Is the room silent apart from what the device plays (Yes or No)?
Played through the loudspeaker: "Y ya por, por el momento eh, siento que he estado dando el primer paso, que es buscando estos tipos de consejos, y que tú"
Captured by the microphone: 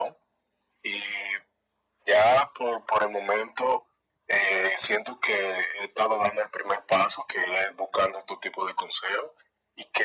Yes